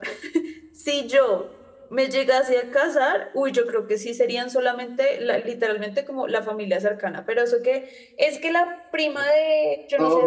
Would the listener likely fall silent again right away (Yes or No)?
No